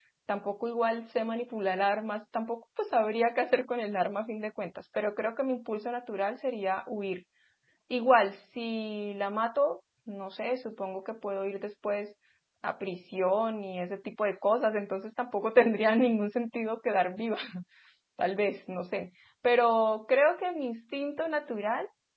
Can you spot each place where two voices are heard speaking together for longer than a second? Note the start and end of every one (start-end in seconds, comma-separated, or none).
none